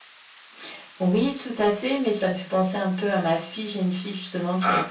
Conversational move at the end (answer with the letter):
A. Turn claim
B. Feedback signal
B